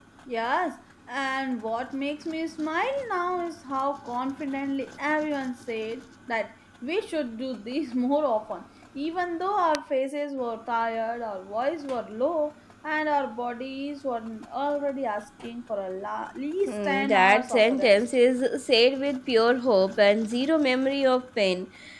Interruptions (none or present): present